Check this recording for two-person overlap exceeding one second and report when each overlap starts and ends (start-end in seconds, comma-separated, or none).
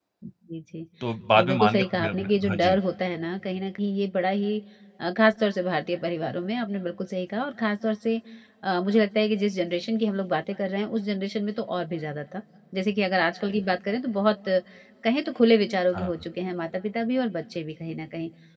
1.4-2.8